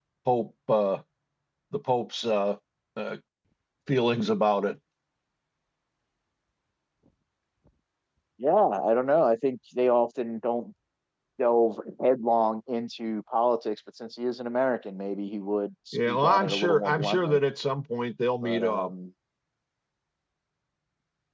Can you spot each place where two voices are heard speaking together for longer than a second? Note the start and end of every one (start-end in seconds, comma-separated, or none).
15.9-17.4